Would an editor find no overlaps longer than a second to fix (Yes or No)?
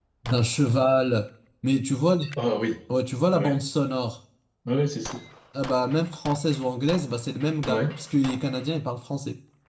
Yes